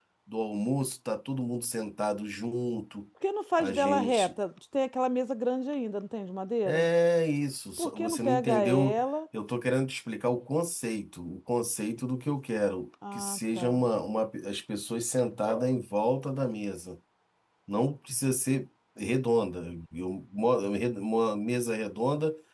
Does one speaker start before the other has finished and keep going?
Yes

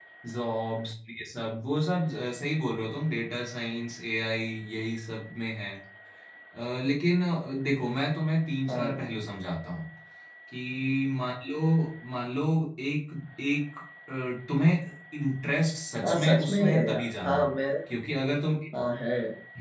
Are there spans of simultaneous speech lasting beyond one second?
Yes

